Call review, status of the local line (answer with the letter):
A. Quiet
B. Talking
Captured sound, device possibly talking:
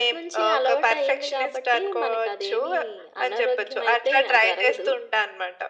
A